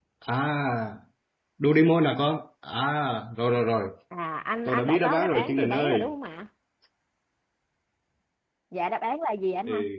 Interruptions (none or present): present